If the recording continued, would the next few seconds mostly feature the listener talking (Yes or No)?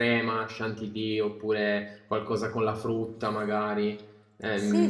Yes